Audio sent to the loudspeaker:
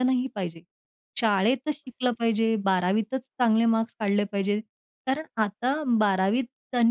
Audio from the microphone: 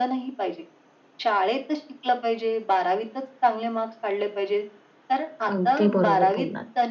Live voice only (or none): अगदी बरोबर बोललात.